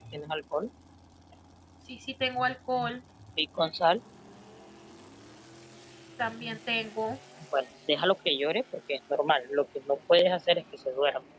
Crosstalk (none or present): none